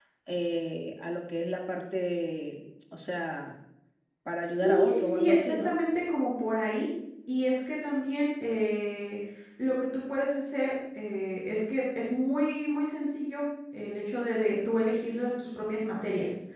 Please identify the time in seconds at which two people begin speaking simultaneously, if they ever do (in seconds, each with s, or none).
4.4 s